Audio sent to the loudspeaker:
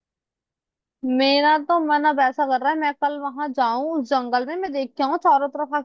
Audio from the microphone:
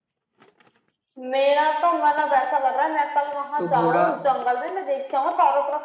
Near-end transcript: तो घोड़ा

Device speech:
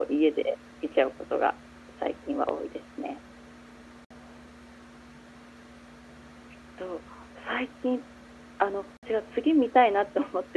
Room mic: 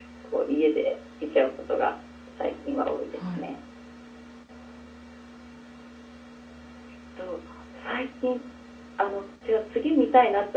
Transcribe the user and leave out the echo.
はい。

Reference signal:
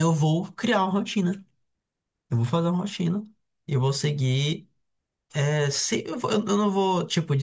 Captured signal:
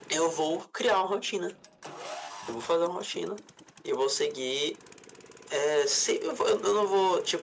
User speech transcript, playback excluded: none

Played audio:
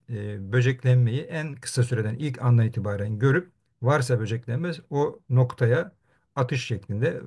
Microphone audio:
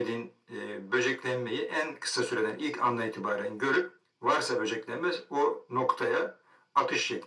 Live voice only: none

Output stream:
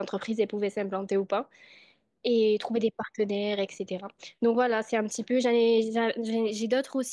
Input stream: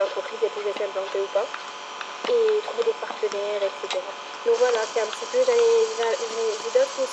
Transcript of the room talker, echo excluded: none

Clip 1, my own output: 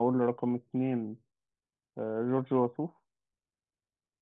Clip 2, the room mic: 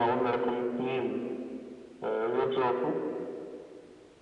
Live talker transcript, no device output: none

